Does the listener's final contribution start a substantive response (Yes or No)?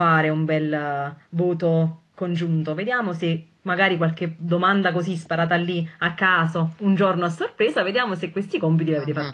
No